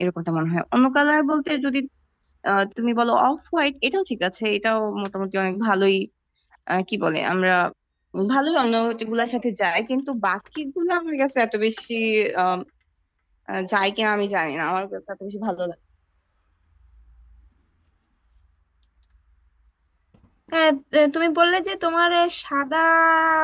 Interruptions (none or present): none